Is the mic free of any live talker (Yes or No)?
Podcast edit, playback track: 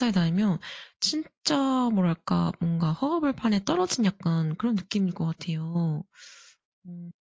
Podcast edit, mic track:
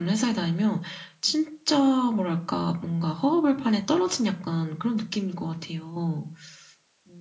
Yes